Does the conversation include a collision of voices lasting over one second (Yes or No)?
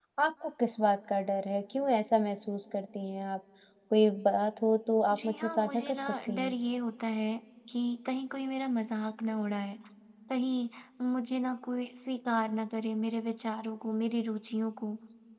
Yes